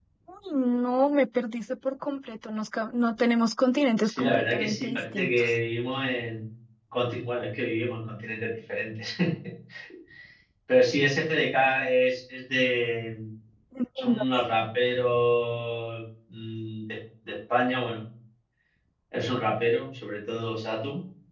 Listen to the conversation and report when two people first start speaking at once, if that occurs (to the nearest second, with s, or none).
4 s